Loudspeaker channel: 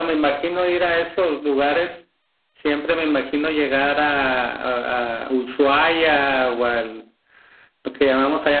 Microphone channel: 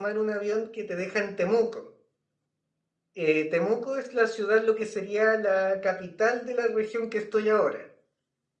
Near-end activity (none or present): present